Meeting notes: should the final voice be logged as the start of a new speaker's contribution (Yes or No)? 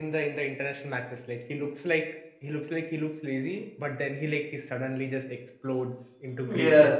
Yes